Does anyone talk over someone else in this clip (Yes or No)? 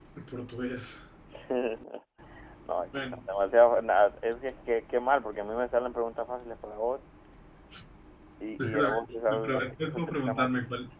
Yes